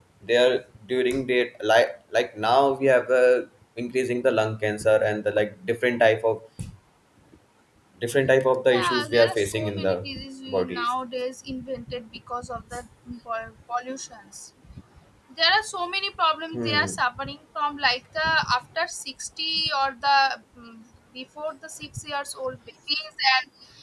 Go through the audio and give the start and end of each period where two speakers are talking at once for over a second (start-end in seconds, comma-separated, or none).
8.7-10.1